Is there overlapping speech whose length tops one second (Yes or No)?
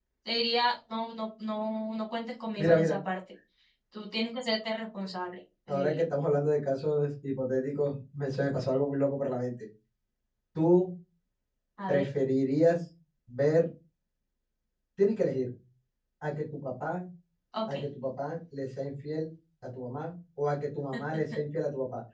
No